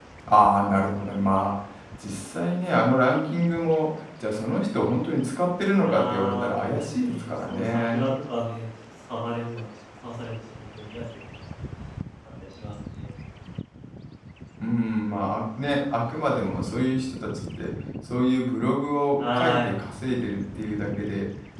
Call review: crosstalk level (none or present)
present